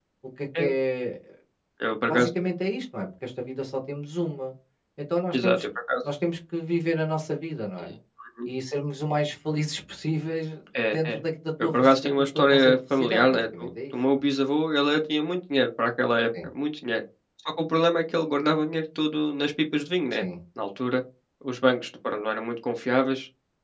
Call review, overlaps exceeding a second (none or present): present